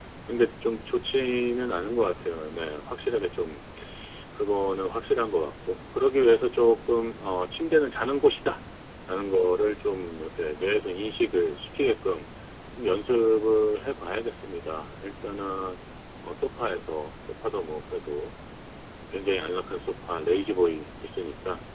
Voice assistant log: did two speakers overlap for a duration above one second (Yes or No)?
No